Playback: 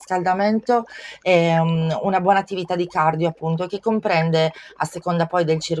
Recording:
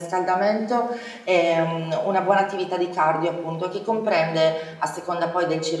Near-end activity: none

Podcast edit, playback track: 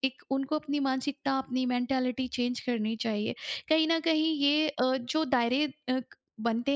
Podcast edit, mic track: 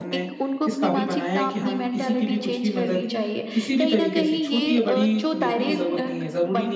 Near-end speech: present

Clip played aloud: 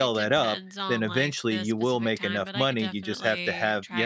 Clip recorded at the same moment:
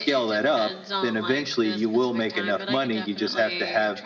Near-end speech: none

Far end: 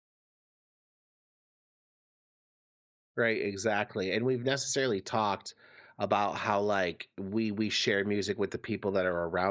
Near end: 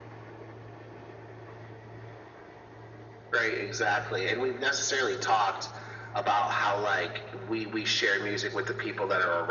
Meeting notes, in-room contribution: none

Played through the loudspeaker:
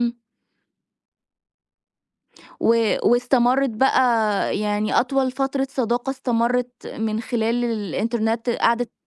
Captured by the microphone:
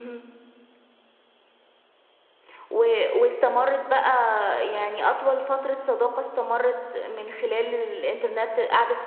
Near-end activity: none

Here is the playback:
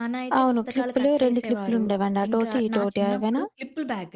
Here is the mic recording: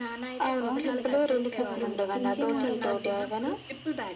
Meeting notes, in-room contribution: present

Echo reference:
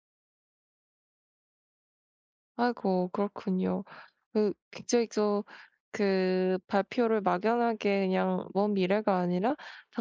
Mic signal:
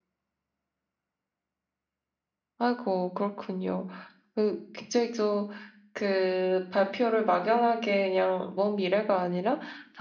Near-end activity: none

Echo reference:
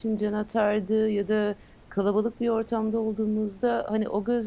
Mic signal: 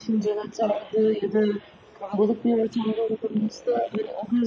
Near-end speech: none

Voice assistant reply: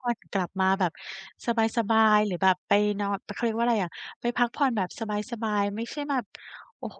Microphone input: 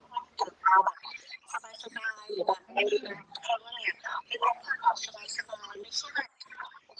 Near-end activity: present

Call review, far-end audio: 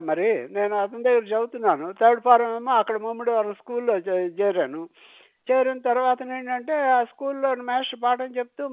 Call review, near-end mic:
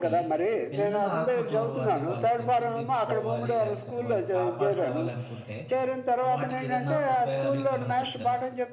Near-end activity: present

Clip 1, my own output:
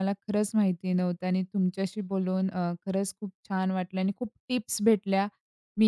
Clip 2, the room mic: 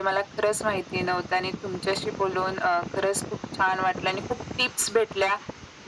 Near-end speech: none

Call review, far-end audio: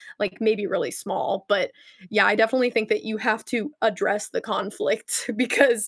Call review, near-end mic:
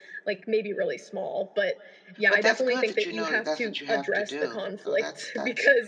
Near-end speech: present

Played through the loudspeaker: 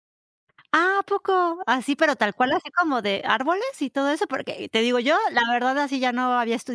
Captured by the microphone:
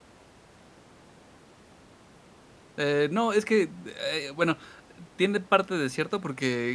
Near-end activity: present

